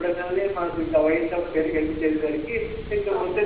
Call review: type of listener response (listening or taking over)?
listening